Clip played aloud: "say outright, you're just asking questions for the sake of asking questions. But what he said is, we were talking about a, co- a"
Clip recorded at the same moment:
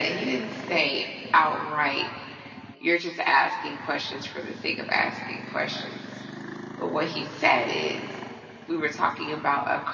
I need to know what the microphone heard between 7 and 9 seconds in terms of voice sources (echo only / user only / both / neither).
echo only